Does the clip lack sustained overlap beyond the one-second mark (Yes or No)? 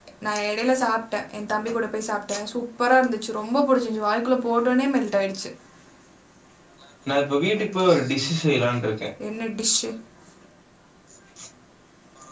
Yes